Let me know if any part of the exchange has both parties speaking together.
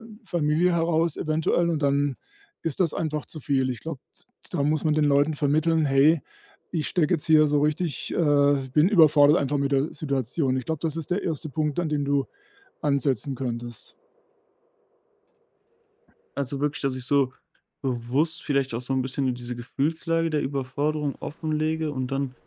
No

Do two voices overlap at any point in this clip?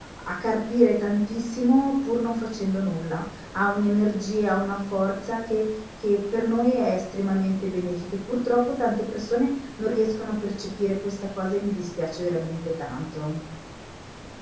No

